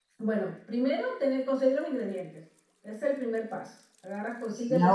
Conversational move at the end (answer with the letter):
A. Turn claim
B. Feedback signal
B